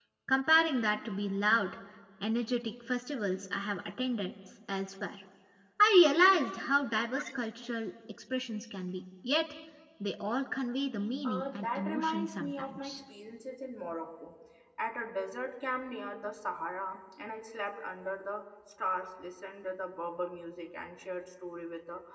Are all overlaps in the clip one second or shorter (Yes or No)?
No